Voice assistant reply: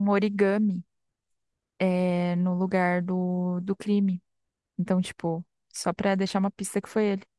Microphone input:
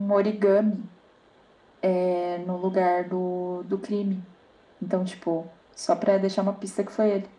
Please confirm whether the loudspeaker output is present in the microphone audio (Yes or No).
Yes